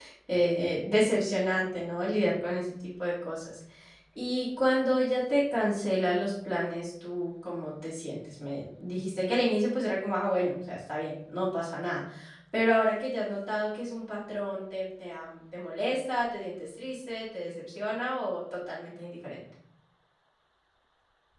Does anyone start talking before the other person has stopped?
No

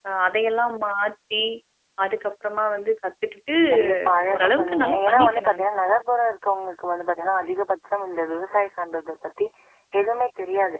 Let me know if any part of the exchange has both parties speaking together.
Yes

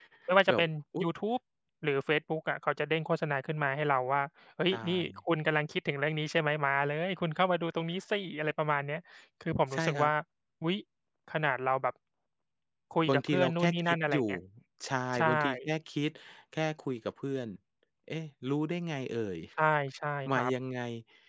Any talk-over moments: Yes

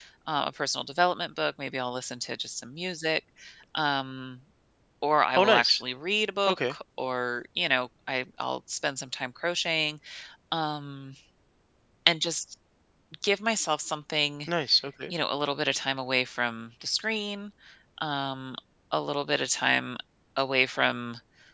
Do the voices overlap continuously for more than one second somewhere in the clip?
No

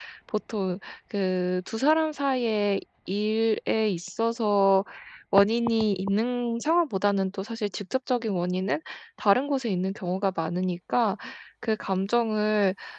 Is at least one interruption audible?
No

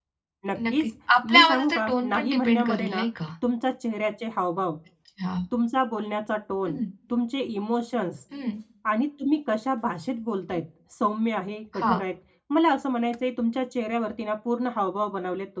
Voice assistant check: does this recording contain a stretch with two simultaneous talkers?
Yes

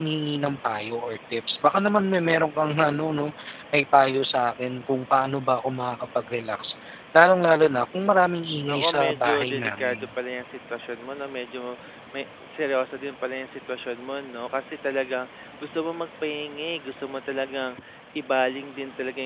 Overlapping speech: Yes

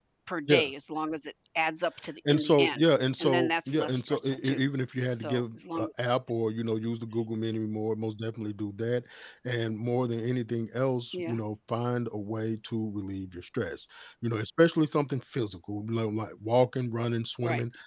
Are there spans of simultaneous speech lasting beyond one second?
Yes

